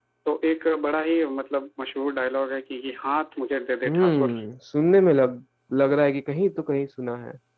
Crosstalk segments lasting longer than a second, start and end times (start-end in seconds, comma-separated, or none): none